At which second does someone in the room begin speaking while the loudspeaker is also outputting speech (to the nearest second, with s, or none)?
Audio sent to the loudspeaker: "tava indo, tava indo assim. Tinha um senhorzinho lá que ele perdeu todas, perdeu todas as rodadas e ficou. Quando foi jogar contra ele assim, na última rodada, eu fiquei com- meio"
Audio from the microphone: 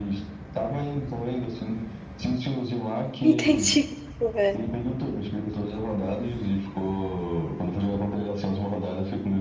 3 s